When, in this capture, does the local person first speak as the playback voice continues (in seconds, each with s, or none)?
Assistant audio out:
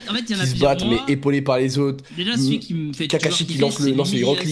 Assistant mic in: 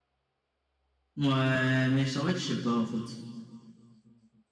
1.2 s